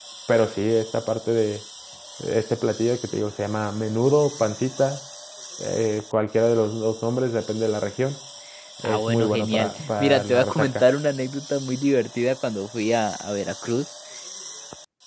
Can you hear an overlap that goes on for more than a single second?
Yes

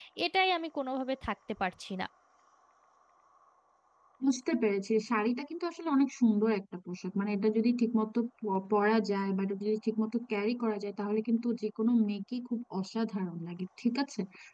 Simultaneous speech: No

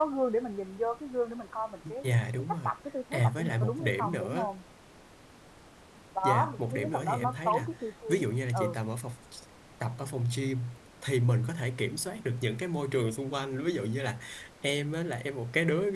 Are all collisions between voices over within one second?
No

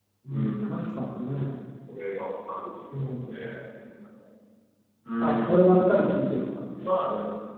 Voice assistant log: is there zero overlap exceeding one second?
No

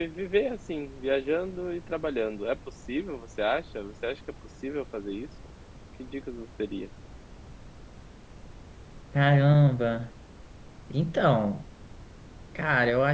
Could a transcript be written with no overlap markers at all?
Yes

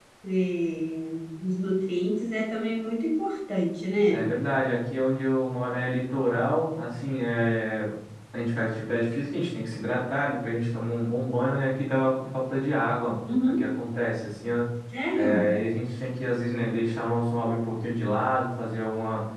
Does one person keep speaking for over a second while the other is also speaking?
No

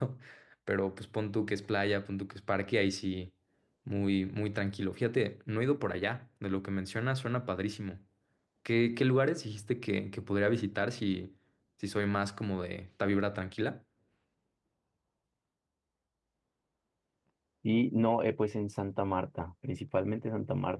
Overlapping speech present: No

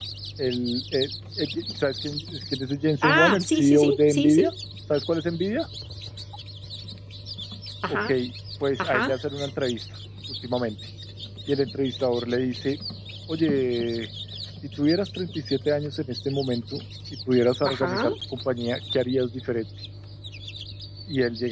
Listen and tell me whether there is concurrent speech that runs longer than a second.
Yes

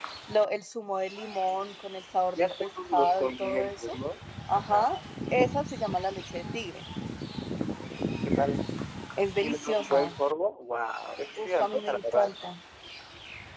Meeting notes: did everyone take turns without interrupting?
No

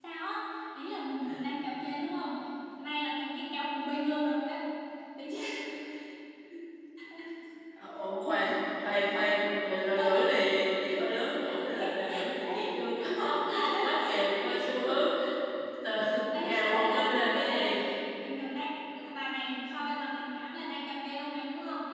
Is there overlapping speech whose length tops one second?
Yes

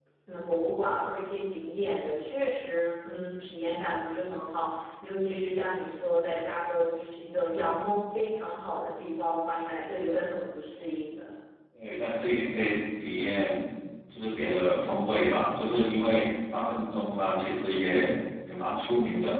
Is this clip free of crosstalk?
Yes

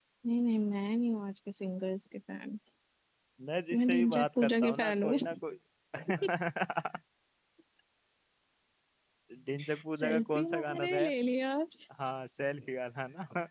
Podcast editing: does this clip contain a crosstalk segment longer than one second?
Yes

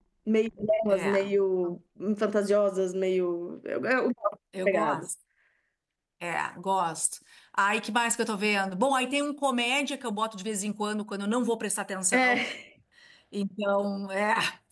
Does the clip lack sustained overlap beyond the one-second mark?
Yes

